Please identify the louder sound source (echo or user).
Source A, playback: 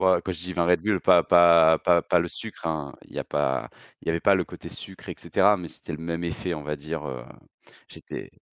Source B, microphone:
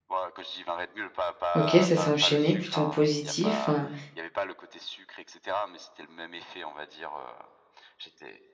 user